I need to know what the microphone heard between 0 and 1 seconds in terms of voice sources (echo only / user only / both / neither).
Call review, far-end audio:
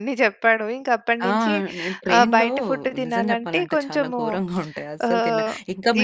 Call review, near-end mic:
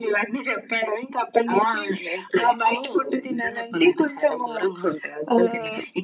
echo only